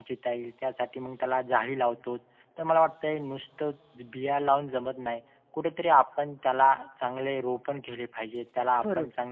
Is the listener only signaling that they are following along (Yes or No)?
Yes